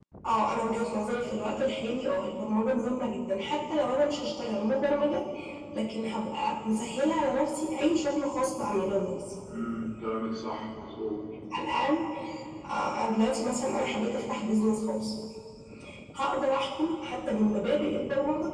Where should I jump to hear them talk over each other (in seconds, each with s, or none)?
none